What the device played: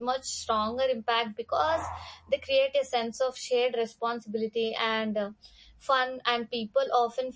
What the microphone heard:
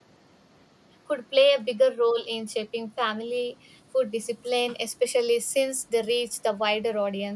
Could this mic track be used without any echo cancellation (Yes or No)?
Yes